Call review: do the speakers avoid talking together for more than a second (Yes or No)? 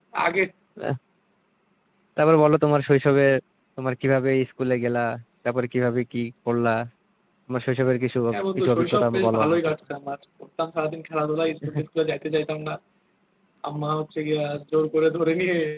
No